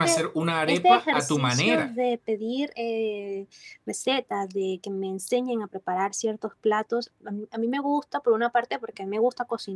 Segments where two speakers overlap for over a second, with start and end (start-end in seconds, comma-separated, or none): 0.7-1.9